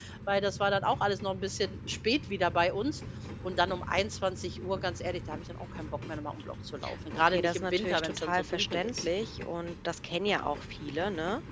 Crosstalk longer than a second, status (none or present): present